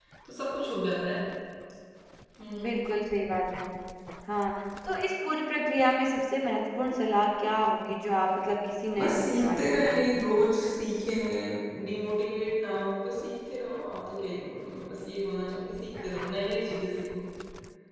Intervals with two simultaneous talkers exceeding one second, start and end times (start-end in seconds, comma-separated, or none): 9.0-10.2